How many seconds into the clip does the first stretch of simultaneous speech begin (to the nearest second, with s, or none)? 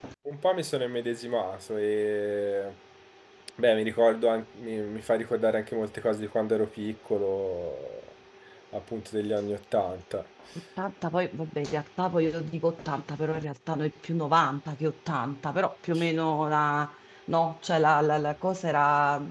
none